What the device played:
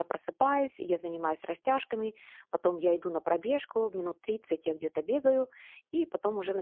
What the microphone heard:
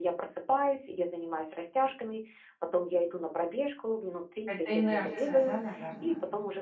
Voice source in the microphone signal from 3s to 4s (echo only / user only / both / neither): echo only